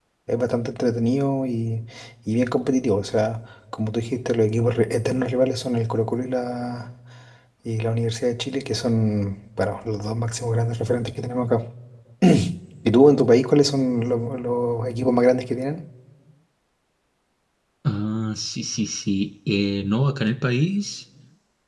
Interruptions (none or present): none